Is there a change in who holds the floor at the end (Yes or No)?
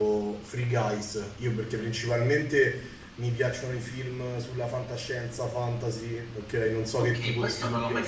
Yes